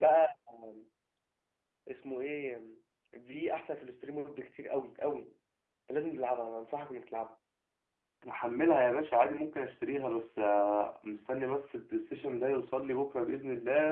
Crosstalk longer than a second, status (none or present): none